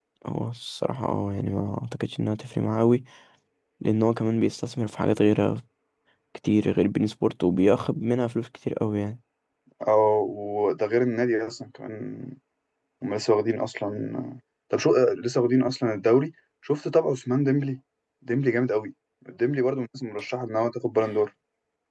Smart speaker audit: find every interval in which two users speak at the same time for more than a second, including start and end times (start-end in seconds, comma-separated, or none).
none